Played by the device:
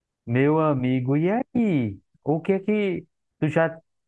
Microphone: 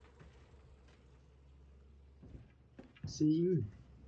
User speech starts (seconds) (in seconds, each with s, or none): 3.0 s